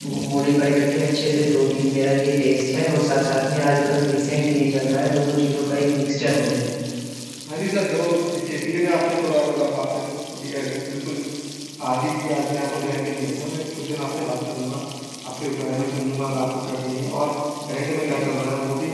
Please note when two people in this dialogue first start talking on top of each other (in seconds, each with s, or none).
none